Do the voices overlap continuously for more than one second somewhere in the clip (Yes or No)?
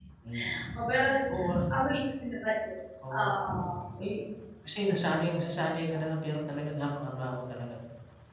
No